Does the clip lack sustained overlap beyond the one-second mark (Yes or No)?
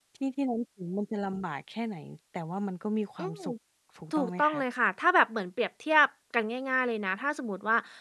Yes